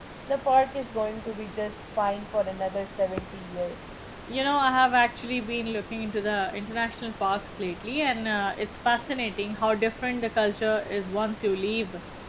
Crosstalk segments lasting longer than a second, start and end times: none

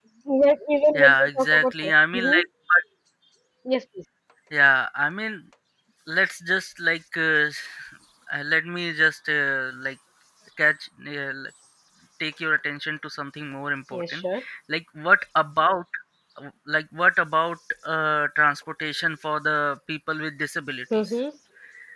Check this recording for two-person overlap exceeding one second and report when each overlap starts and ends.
1.0-2.4

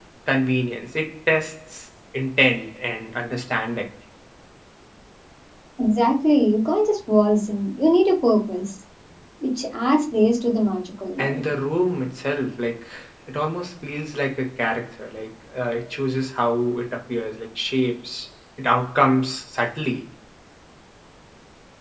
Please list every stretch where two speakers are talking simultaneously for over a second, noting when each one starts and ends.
none

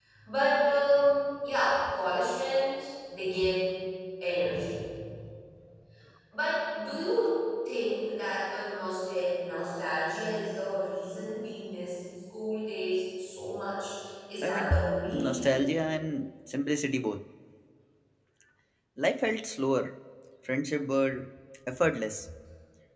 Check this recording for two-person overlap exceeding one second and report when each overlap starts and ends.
14.4-15.7

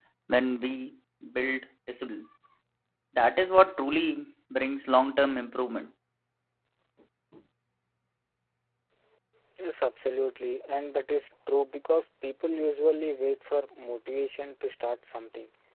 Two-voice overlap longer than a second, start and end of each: none

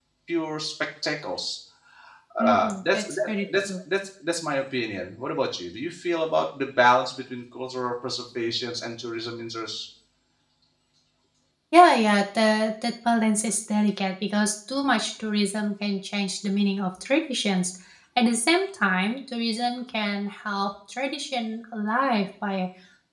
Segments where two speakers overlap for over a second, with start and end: 2.4-3.7

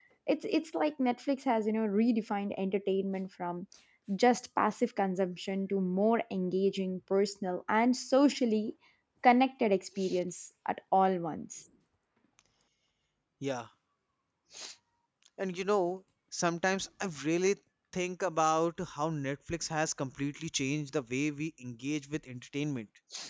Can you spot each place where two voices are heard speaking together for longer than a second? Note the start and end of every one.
none

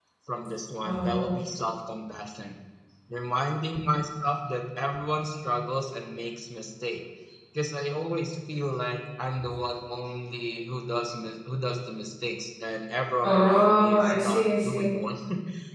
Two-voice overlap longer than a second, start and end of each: 13.2-14.9

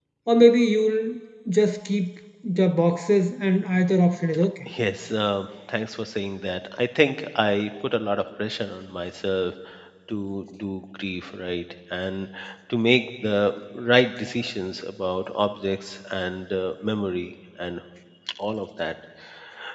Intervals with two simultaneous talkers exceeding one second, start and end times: none

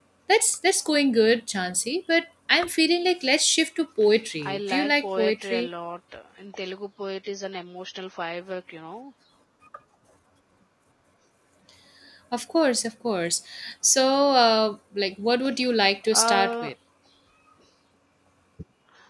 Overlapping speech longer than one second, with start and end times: 4.4-5.7

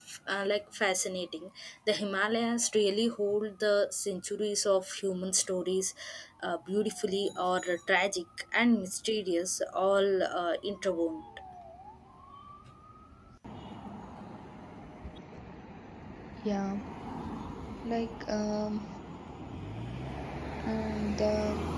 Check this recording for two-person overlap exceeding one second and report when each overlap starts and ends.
none

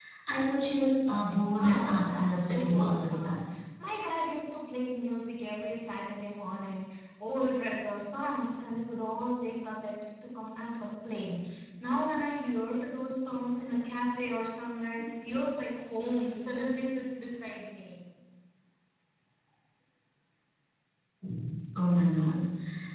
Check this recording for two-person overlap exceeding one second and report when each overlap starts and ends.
1.6-3.4

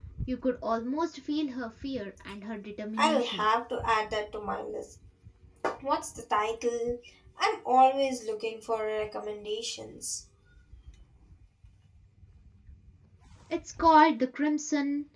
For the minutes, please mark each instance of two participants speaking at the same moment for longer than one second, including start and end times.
none

